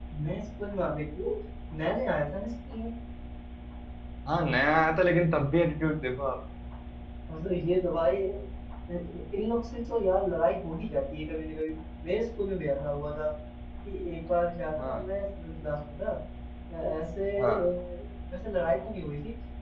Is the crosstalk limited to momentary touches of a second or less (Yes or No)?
Yes